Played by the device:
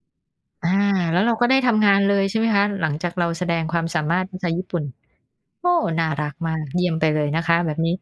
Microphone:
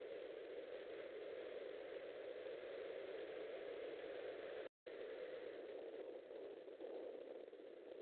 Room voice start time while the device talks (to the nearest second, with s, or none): none